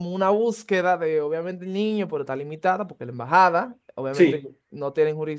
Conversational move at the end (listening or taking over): listening